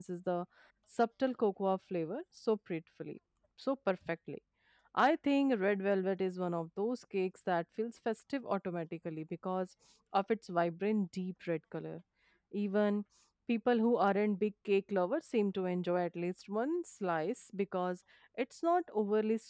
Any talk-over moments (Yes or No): No